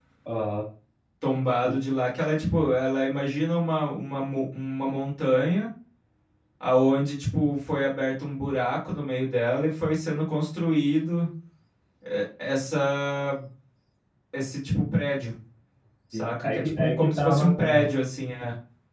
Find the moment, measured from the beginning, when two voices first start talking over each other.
16.1 s

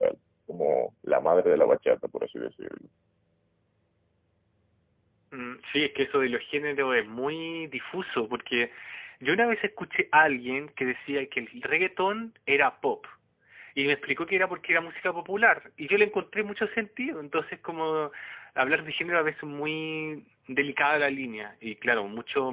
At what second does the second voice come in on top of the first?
none

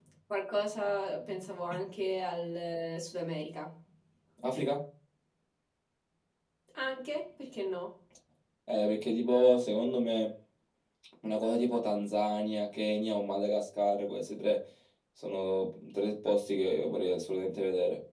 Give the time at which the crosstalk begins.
none

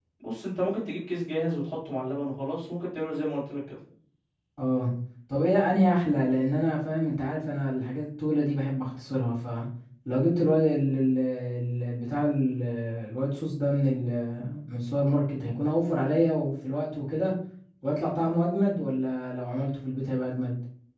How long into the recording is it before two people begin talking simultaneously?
none

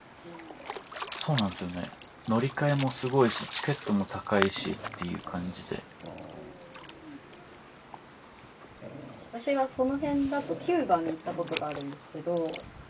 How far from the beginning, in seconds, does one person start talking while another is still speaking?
none

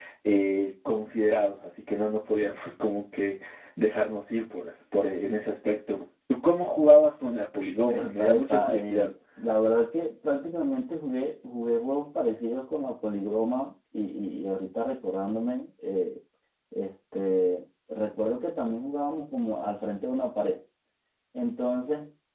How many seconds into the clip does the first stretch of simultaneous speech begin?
7.8 s

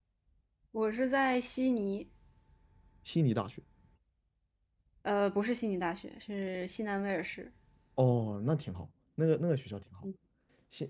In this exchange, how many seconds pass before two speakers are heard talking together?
none

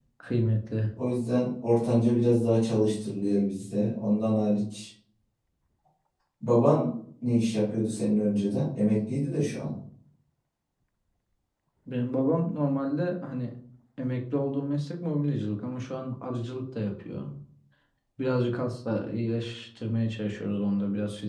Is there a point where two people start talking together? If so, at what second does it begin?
none

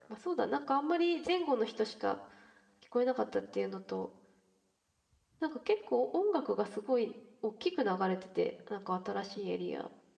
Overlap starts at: none

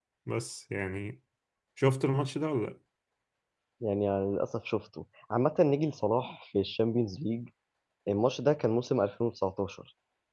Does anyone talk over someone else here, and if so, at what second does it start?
none

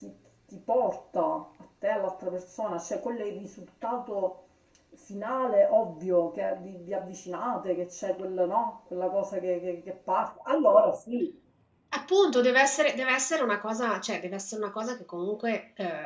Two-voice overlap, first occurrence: none

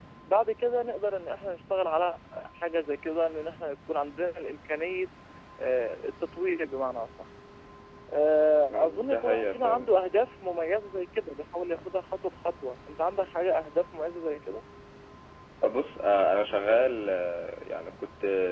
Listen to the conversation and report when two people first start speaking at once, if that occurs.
8.7 s

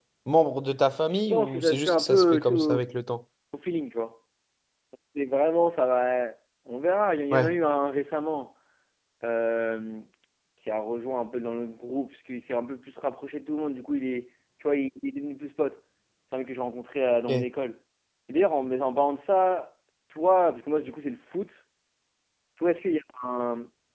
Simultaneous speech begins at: 1.3 s

